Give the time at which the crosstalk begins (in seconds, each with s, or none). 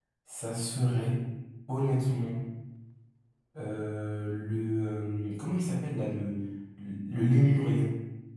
none